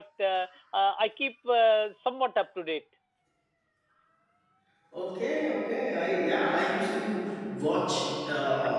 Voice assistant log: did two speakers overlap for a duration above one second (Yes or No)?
No